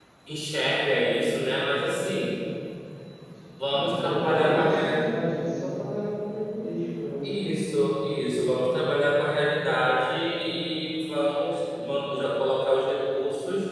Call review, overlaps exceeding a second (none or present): present